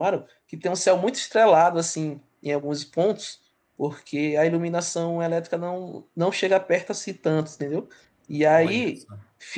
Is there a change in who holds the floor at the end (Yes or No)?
No